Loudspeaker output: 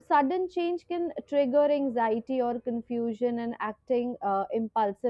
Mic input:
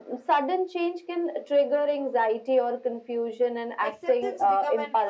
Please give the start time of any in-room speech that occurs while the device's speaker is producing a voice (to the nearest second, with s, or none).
4 s